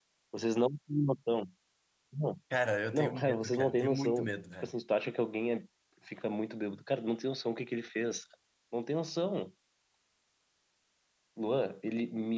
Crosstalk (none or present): present